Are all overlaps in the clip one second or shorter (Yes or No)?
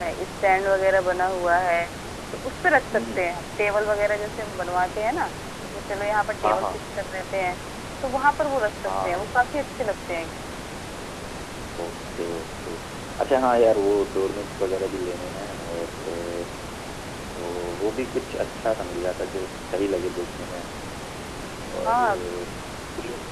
Yes